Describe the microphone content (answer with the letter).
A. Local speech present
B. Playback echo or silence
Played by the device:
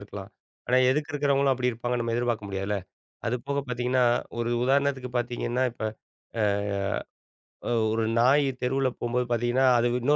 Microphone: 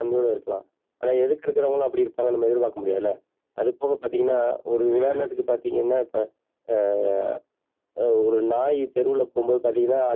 A